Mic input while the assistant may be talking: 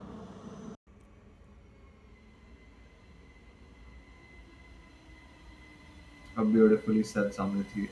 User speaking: Yes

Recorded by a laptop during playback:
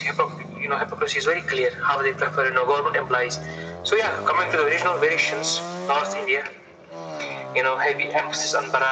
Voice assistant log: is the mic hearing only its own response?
Yes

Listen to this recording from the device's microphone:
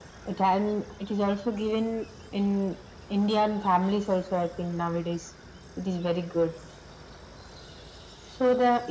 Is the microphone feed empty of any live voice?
Yes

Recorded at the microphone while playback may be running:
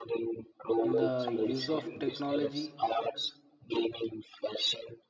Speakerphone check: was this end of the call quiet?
No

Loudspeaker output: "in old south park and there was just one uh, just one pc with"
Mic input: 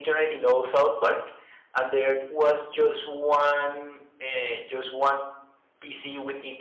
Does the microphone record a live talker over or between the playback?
No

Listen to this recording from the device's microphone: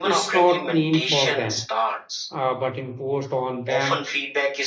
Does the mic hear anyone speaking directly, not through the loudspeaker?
Yes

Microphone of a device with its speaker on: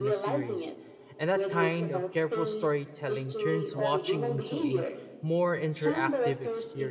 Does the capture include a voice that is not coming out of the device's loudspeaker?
Yes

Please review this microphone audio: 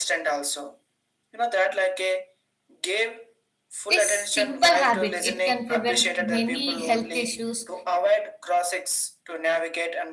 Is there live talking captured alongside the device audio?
Yes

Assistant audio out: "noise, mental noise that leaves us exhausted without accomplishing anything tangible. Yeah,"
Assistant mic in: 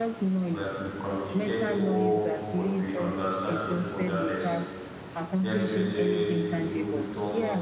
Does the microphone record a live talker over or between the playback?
Yes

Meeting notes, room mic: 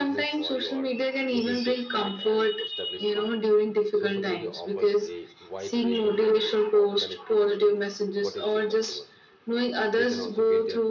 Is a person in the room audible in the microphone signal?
Yes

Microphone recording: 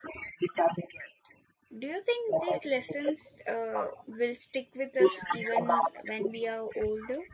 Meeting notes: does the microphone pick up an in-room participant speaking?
Yes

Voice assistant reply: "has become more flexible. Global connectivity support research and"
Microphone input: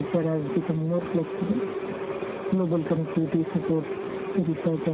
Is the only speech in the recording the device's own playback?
Yes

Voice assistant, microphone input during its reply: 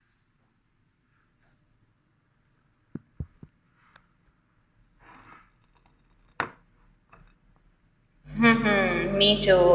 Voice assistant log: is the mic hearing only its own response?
No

